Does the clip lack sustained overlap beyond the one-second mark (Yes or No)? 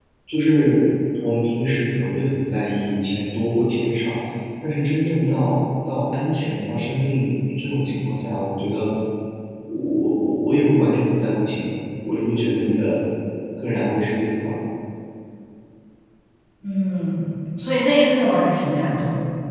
Yes